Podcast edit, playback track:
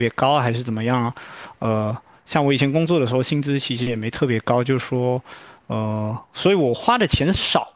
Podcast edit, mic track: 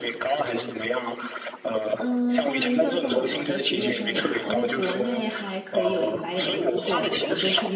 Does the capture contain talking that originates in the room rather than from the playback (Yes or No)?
Yes